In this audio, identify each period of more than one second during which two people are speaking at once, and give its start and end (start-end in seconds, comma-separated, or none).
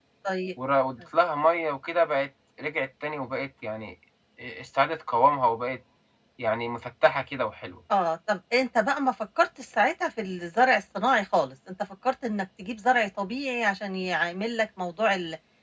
none